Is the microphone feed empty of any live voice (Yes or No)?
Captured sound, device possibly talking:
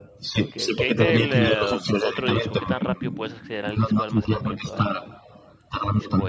No